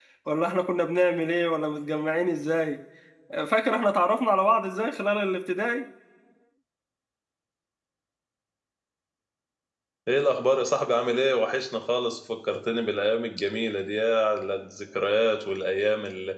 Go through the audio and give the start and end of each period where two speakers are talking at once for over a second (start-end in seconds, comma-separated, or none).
none